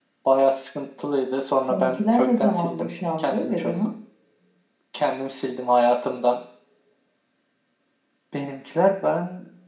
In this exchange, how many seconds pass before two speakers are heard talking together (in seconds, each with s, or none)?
1.6 s